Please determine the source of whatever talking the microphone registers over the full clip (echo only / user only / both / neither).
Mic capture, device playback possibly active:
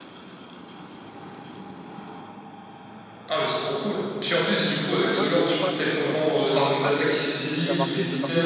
both